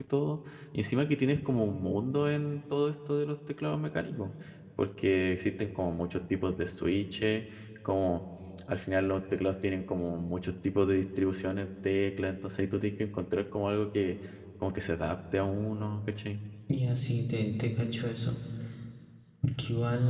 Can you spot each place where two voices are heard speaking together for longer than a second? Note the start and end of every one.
none

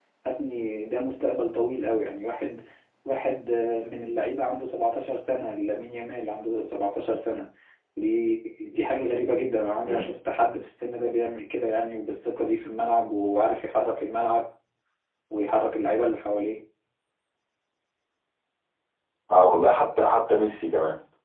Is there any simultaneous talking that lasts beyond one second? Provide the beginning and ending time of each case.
none

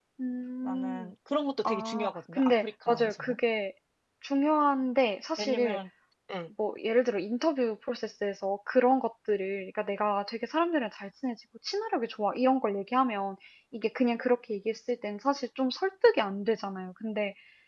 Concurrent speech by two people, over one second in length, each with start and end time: 1.6-3.4

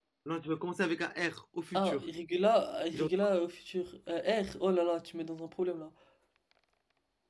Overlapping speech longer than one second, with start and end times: none

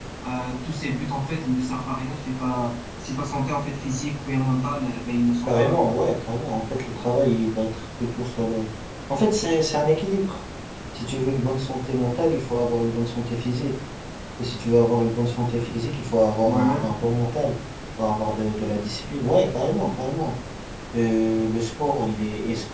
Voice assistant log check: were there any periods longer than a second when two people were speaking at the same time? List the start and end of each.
none

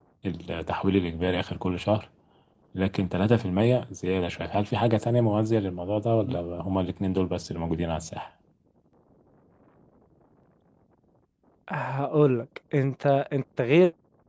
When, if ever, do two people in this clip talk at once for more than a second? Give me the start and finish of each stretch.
none

